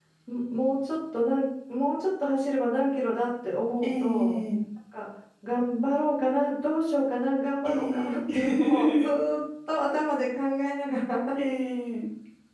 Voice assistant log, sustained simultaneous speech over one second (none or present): present